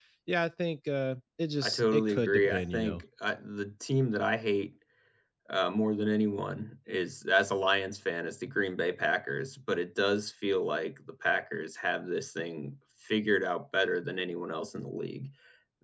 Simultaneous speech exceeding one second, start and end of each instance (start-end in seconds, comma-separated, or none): 1.6-3.0